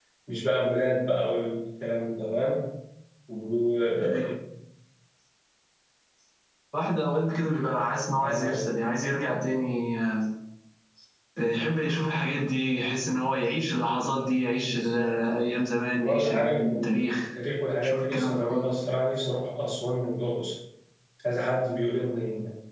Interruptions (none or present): present